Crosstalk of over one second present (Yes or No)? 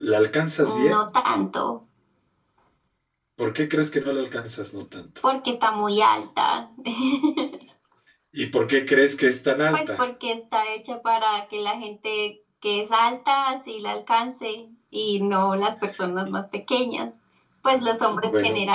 No